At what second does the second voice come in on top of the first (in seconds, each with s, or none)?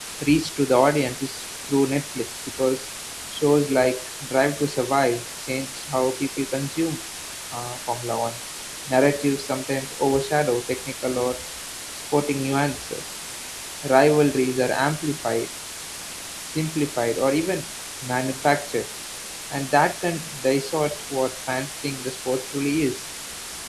none